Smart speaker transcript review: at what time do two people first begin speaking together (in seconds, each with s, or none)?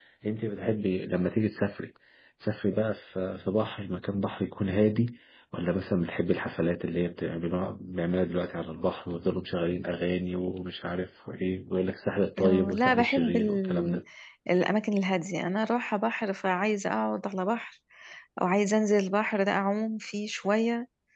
12.4 s